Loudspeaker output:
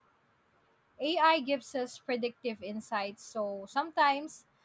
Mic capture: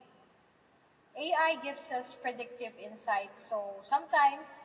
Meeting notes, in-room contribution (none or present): none